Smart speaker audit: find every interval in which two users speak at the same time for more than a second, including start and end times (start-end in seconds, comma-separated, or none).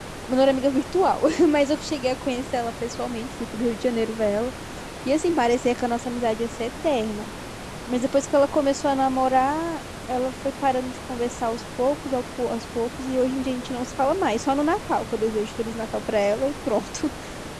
none